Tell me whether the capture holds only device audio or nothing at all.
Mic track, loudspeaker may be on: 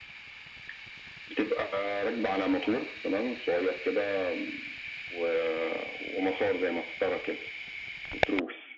Yes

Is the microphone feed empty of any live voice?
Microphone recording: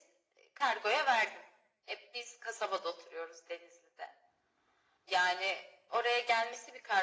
Yes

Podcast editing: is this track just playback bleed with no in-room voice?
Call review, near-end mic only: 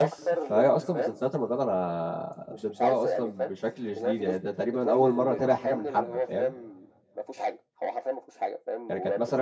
No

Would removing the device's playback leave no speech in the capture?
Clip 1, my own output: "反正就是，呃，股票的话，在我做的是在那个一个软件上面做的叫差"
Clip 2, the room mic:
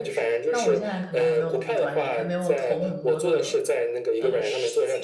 No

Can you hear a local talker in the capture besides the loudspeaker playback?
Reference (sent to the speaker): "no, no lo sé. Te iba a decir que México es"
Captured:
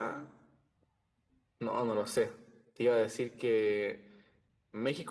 No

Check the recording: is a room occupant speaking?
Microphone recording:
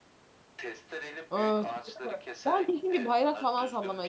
Yes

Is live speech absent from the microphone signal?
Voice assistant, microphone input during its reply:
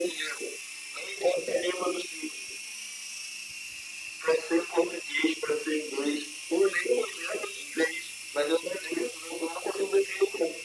Yes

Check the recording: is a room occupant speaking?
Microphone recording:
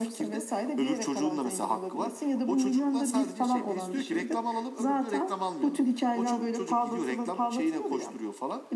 No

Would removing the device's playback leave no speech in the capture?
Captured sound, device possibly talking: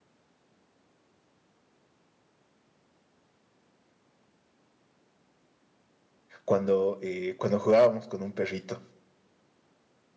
No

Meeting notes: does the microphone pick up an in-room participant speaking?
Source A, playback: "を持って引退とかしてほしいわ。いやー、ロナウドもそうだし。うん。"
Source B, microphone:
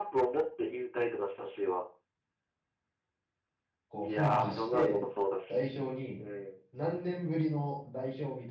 Yes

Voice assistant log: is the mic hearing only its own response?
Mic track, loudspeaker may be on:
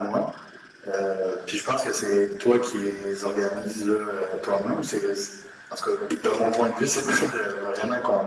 Yes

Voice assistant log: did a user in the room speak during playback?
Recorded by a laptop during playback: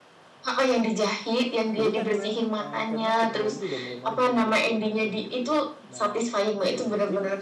Yes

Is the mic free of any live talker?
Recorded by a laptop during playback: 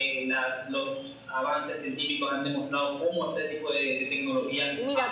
No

